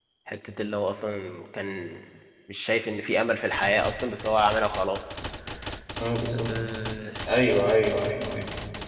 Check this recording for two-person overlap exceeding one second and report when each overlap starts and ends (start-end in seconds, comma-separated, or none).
none